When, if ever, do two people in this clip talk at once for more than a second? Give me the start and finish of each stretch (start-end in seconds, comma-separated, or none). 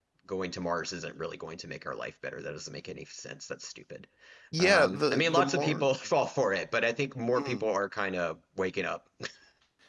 4.6-5.8